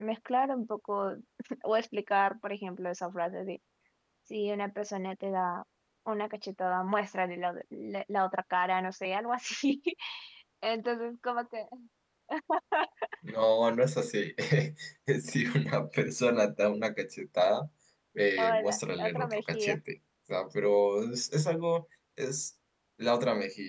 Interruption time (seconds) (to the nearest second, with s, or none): 18 s